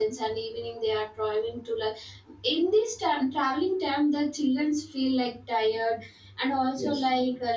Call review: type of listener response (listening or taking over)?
listening